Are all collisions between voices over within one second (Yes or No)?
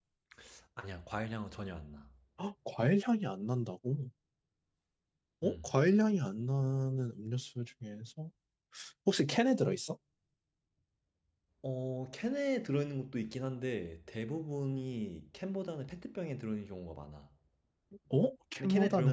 Yes